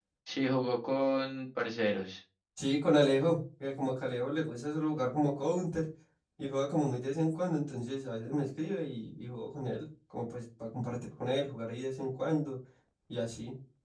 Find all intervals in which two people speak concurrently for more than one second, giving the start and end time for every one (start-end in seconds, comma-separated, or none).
none